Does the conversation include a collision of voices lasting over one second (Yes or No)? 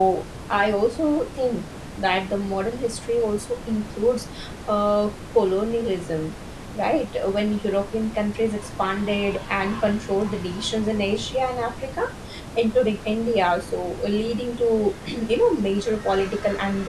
No